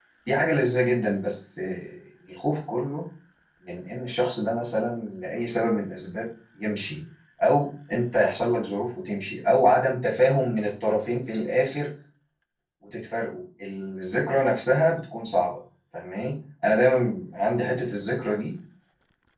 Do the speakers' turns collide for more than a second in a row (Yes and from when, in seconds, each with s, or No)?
No